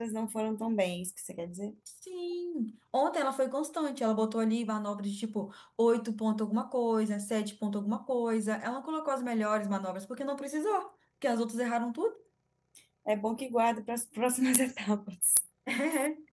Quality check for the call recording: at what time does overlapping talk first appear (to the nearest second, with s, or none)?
none